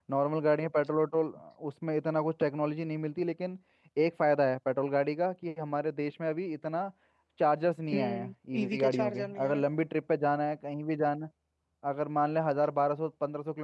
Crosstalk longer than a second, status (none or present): present